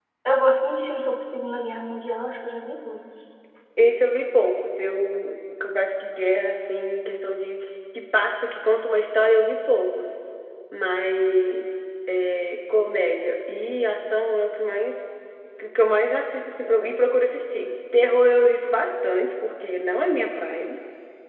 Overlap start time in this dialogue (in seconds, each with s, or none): none